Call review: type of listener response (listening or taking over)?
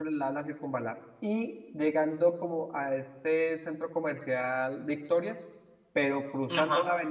listening